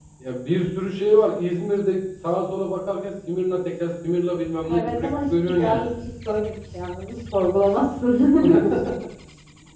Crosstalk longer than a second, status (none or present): present